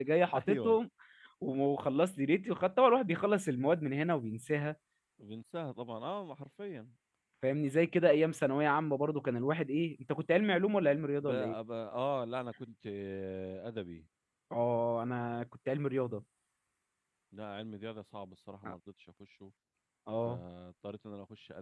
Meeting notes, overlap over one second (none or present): none